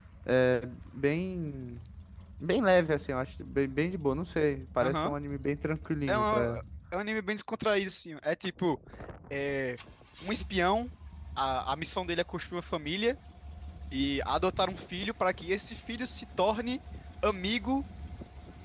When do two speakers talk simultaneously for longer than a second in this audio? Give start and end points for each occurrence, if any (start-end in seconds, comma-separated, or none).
none